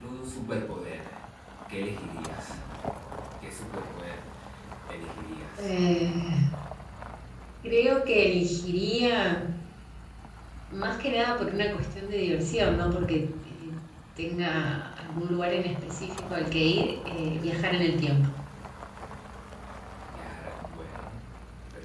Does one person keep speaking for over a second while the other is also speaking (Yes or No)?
No